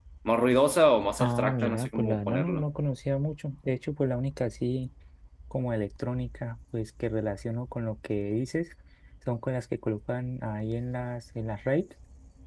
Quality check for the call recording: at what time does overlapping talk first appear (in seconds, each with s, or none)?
1.2 s